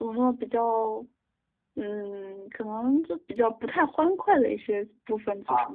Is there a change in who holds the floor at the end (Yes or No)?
Yes